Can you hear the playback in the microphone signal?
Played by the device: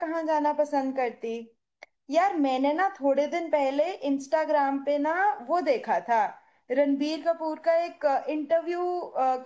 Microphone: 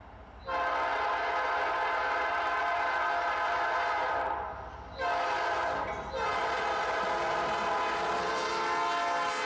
No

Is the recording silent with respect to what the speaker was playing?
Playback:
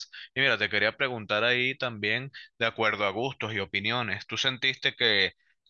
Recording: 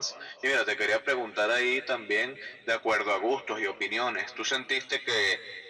No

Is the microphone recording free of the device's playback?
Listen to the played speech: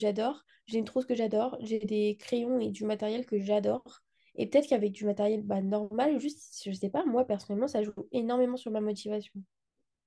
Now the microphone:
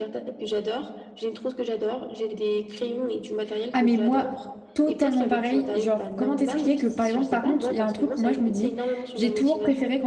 No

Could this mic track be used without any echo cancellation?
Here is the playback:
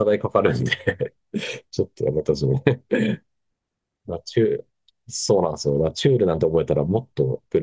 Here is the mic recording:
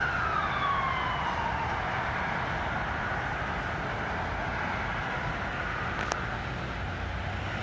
Yes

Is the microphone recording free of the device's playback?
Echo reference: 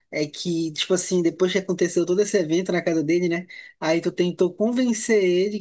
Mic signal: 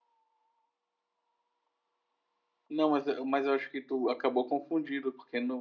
Yes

